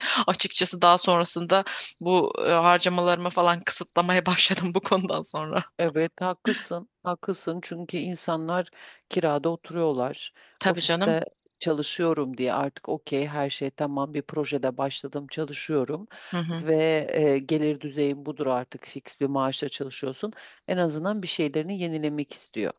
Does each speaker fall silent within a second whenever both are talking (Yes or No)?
Yes